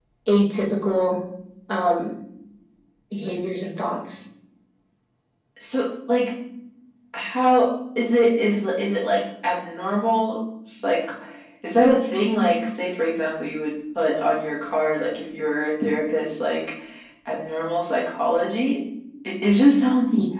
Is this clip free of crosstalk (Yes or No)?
Yes